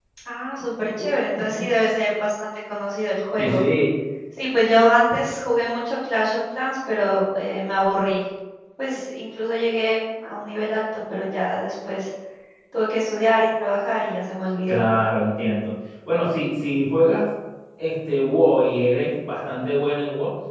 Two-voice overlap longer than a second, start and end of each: none

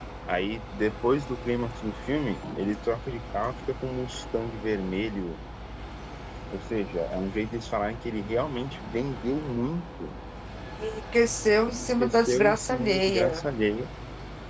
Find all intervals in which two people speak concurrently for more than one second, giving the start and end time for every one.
11.7-13.4

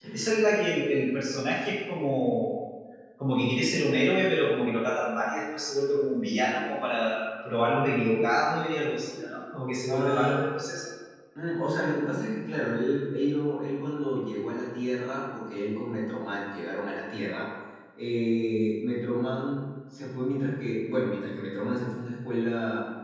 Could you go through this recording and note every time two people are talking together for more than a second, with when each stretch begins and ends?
none

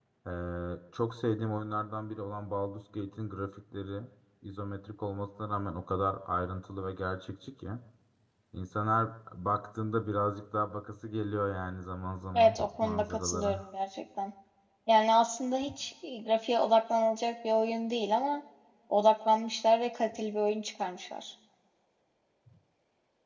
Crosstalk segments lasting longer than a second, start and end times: 12.3-13.6

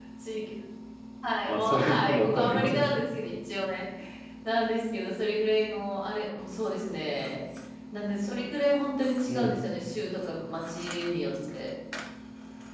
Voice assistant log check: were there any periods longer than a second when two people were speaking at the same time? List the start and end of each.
1.5-2.9

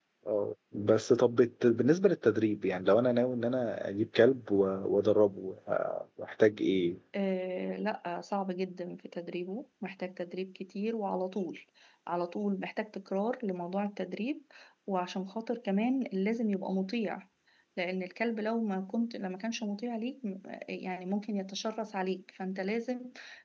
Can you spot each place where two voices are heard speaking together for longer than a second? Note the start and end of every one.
none

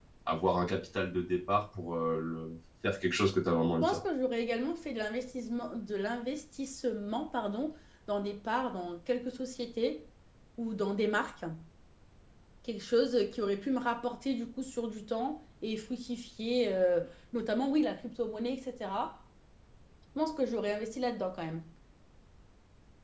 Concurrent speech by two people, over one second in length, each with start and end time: none

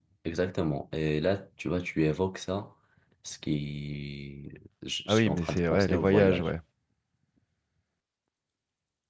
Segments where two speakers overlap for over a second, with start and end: 5.1-6.5

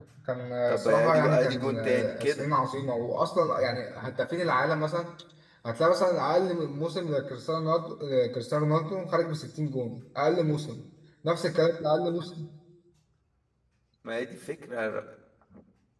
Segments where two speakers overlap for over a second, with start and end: 0.7-2.5

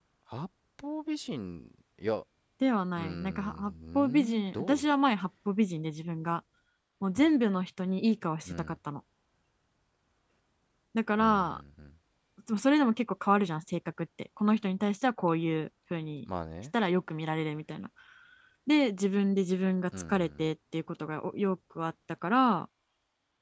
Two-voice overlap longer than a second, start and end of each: 3.0-4.8

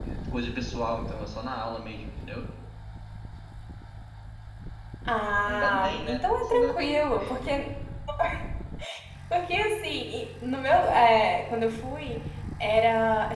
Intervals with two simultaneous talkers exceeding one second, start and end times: 5.4-6.7

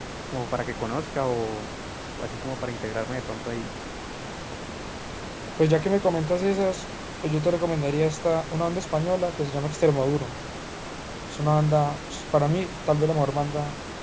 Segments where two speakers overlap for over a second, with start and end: none

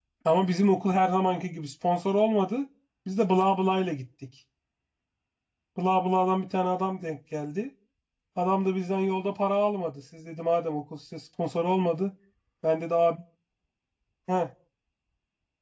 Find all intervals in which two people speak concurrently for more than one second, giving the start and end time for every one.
none

